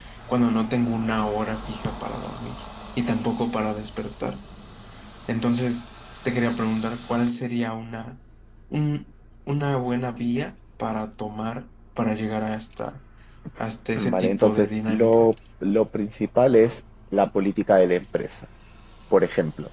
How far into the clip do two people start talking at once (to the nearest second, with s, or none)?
14 s